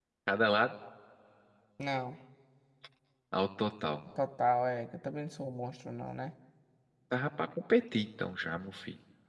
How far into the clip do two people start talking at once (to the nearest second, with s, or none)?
none